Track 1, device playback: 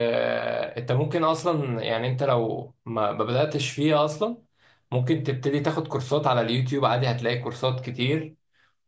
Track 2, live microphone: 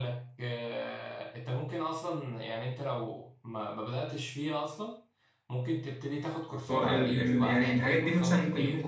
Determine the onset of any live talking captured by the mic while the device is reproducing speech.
6.7 s

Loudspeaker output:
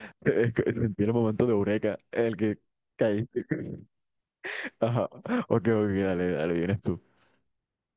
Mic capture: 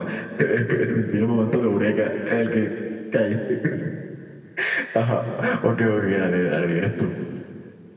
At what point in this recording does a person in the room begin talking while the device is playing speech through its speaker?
none

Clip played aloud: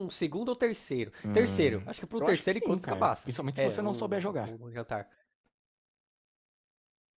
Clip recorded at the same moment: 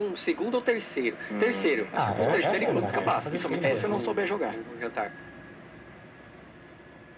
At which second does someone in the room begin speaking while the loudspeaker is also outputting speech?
1.9 s

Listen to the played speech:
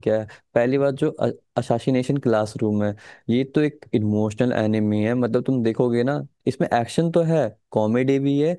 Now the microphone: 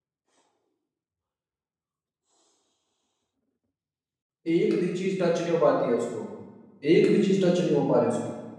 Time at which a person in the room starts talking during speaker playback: 4.5 s

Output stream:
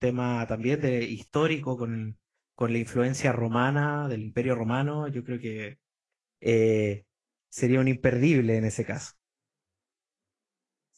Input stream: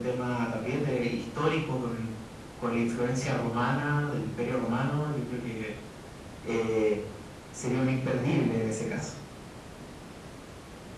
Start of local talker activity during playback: none

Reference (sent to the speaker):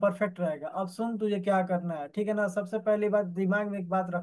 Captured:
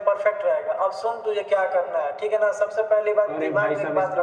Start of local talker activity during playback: 3.3 s

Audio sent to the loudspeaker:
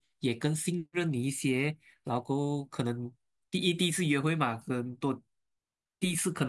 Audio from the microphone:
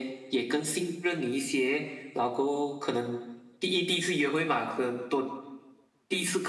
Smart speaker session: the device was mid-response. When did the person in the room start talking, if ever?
none

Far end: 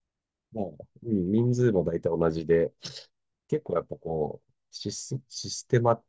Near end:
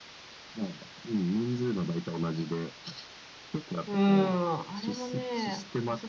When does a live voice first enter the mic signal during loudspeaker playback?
3.9 s

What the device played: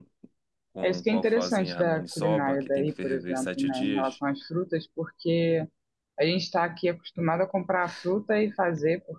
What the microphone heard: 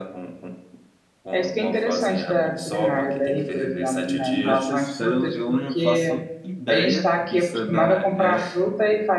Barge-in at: 4.4 s

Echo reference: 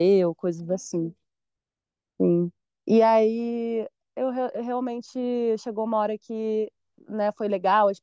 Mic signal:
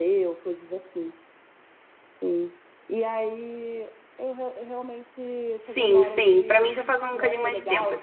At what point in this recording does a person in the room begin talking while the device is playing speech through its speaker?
5.5 s

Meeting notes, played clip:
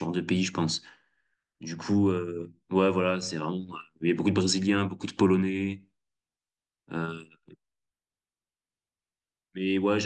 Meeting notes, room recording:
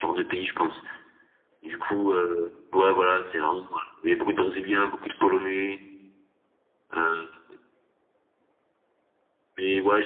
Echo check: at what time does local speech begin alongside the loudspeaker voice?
none

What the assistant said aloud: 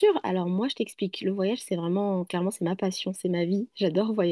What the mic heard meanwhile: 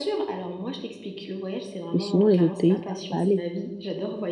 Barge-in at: 1.9 s

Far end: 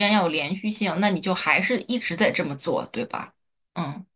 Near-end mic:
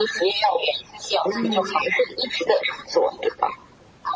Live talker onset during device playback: 1.3 s

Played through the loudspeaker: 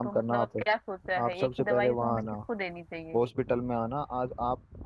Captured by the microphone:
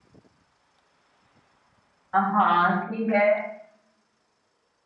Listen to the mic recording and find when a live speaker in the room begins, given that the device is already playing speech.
2.1 s

